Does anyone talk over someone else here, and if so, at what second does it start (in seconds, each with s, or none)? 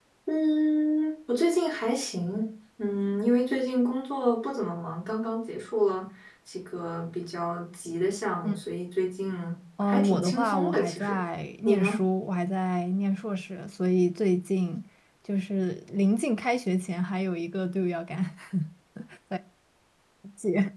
9.8 s